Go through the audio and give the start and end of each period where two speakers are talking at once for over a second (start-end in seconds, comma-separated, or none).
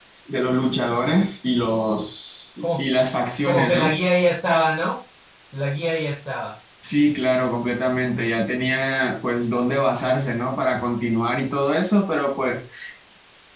none